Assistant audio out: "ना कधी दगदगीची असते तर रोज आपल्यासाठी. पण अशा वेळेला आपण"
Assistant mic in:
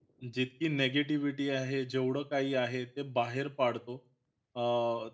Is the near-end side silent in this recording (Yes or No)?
No